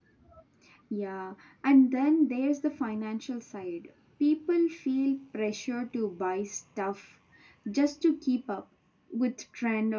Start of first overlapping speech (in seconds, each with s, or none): none